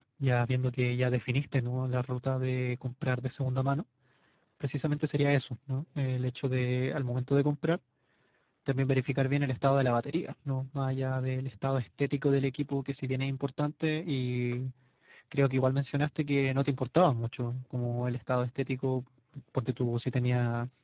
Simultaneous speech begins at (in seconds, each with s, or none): none